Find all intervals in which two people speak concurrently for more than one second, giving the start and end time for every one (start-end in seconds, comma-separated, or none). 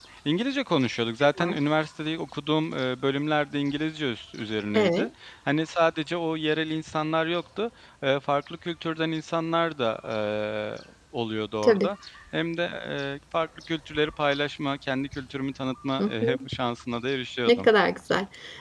none